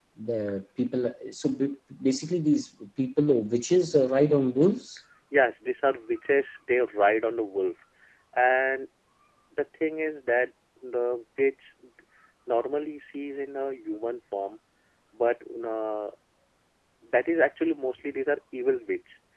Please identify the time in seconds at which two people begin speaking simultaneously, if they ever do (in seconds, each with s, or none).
none